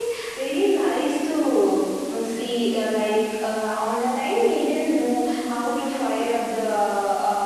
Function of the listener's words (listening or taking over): listening